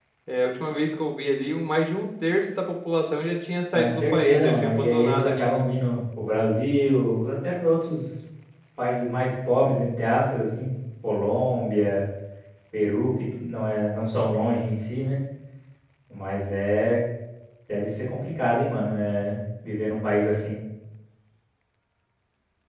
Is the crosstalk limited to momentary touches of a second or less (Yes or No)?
No